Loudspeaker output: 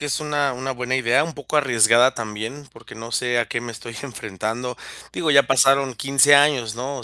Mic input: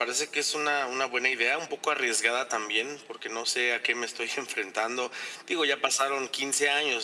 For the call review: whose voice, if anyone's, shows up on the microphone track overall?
echo only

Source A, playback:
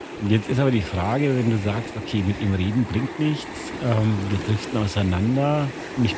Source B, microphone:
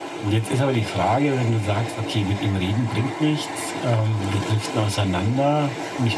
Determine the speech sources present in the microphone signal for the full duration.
echo only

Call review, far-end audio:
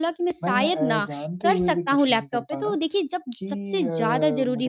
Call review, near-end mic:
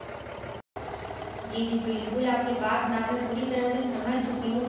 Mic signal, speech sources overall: user only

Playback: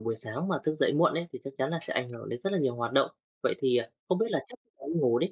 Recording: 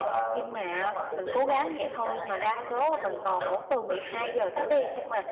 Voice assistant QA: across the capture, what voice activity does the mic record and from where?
both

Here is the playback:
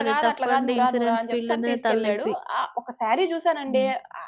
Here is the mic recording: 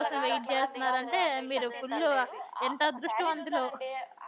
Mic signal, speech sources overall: both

